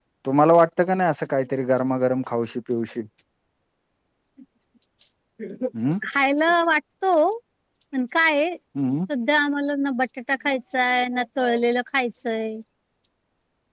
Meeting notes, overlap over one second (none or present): none